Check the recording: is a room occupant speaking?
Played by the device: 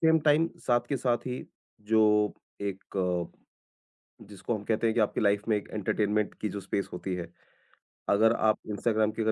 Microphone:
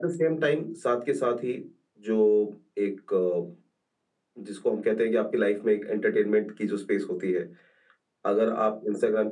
No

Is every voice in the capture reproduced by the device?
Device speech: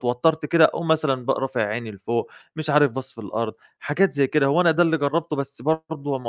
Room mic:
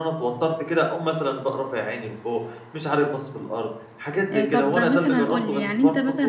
No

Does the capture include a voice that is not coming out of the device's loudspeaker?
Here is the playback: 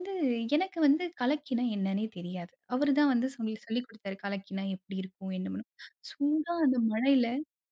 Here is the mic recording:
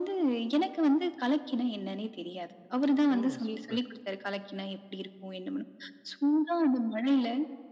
Yes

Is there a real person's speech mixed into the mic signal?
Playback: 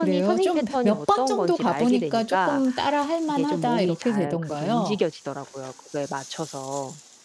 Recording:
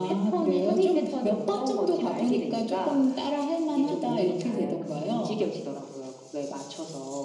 No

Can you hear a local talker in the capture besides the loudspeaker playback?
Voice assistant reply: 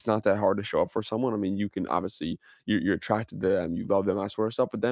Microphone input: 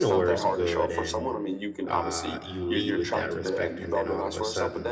Yes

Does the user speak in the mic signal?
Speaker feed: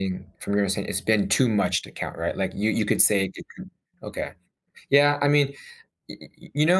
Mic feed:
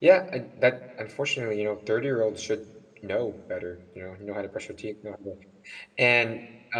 Yes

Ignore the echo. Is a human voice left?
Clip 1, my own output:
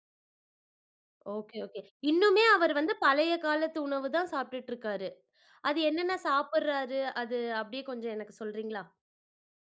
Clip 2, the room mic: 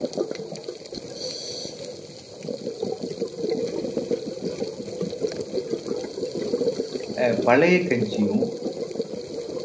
Yes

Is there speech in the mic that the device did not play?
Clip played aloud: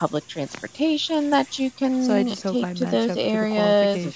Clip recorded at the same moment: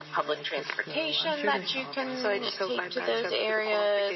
Yes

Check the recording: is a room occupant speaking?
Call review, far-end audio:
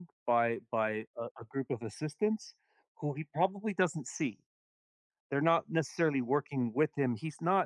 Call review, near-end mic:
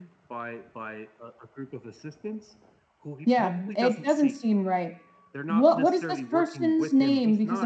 Yes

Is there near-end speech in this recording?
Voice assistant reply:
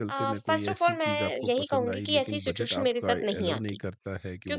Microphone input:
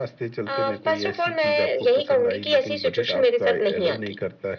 No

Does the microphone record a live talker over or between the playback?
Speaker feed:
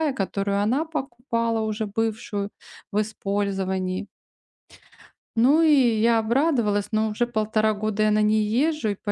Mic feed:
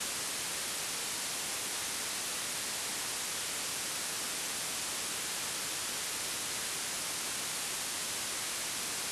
No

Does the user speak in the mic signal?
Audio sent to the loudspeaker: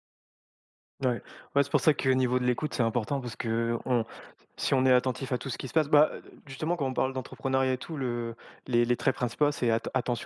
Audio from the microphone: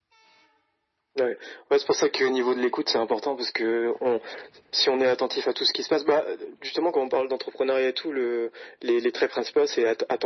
No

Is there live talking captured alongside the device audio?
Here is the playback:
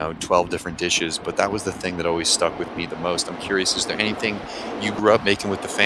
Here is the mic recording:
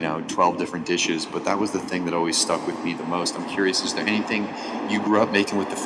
No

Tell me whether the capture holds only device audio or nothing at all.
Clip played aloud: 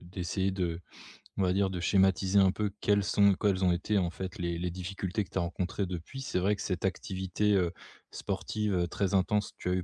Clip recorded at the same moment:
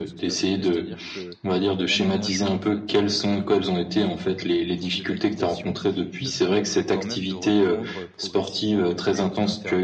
No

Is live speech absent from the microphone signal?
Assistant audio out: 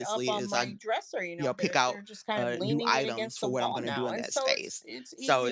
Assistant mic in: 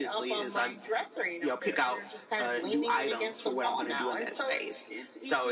Yes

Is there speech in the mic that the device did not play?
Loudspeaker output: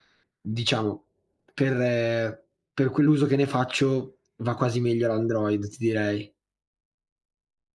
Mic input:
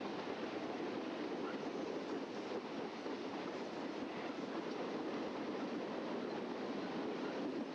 No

